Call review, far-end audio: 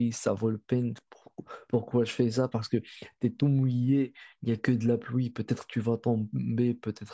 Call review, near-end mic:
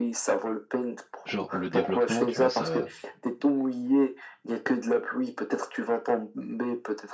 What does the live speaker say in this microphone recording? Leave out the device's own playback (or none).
Genre, le développement, tu vois, ça.